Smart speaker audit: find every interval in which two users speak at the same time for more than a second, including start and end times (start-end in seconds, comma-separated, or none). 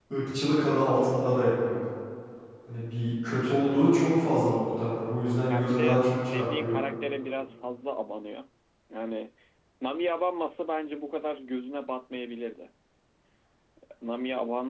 5.5-6.8